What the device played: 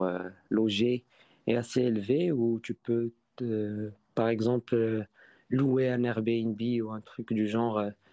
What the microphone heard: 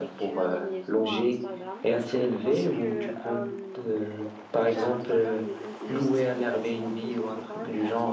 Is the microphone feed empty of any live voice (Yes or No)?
No